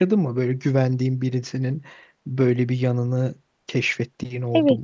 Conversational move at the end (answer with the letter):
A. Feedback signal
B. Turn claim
B